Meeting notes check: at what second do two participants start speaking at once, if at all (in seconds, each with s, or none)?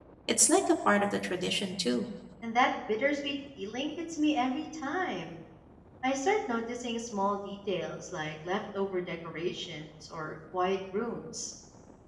none